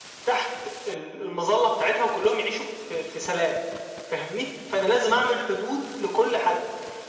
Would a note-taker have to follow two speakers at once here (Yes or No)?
No